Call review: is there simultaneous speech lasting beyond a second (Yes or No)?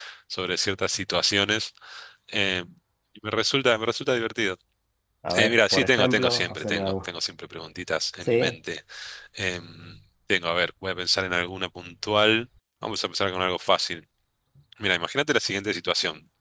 Yes